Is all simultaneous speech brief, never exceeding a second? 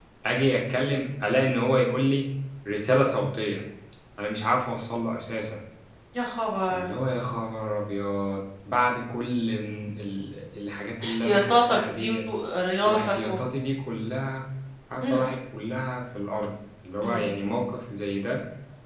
No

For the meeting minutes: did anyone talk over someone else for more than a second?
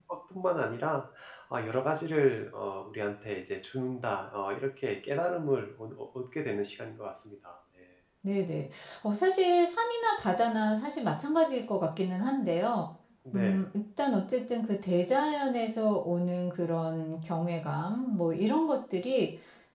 No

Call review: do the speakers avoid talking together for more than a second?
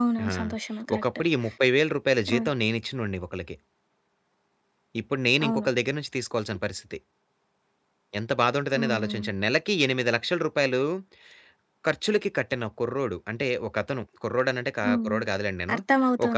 Yes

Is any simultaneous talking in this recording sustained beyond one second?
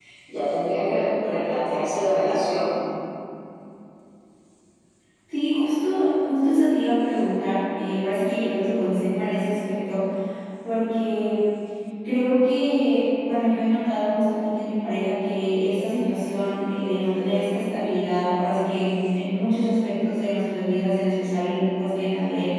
No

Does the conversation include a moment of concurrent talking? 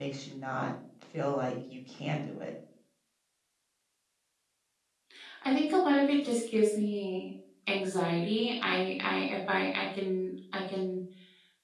No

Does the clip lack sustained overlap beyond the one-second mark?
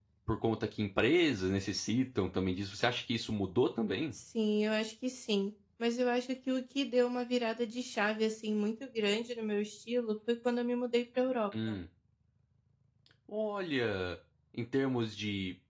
Yes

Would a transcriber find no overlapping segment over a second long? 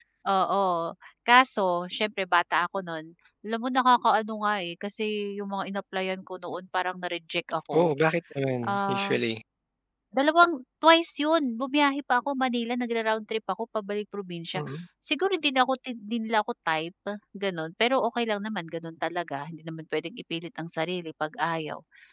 Yes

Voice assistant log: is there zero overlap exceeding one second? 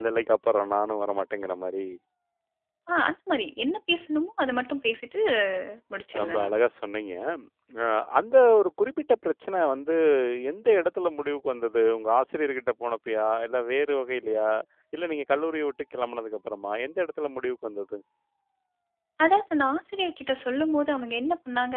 Yes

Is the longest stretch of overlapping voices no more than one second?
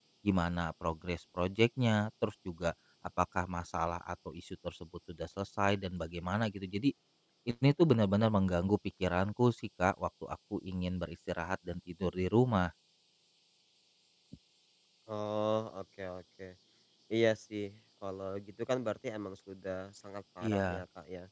Yes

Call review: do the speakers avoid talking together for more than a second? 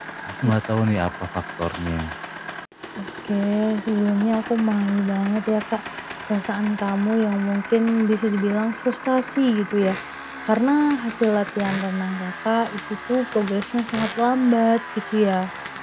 Yes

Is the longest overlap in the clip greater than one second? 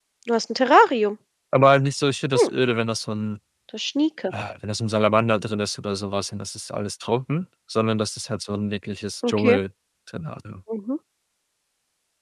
No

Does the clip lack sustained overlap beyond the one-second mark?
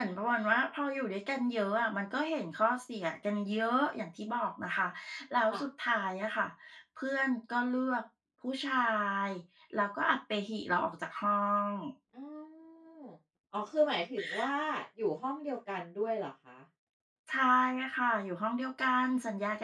Yes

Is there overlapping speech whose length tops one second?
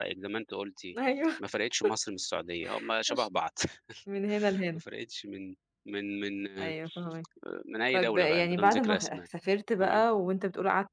Yes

